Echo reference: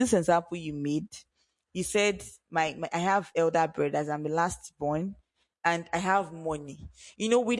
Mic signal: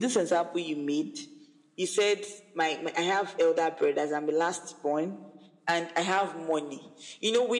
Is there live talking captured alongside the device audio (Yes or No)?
No